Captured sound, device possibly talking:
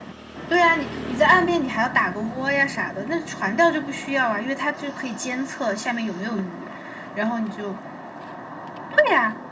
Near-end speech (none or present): none